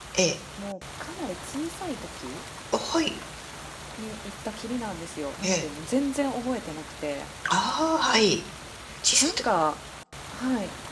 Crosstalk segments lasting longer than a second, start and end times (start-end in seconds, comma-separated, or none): none